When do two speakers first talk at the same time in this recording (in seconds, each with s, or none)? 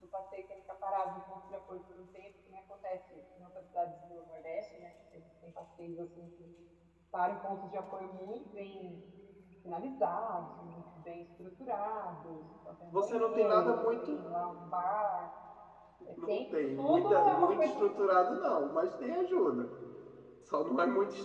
12.9 s